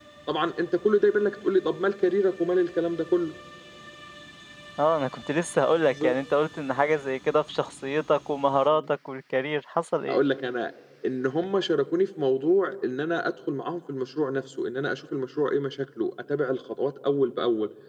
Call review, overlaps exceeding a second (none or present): none